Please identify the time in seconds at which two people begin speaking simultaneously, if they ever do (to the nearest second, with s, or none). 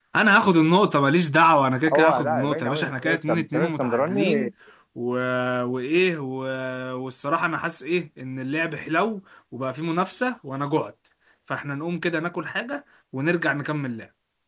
2 s